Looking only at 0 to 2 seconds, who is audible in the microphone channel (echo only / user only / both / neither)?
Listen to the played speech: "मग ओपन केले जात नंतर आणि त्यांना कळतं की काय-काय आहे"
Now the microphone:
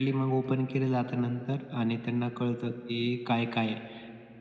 echo only